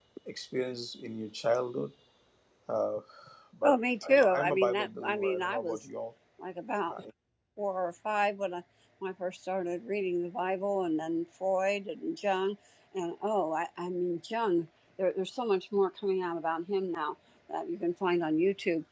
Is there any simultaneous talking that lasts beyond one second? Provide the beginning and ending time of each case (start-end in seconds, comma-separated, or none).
3.6-5.8